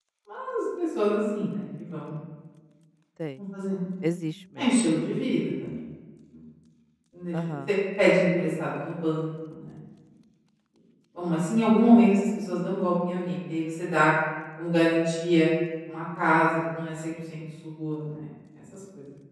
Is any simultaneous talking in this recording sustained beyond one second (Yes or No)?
No